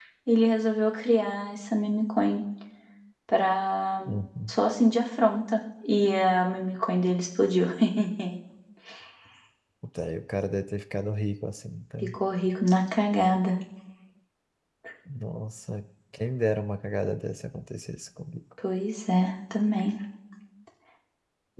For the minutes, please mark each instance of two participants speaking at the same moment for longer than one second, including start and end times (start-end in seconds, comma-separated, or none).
none